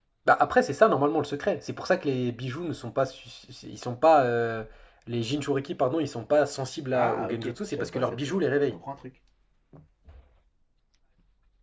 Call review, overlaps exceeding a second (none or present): present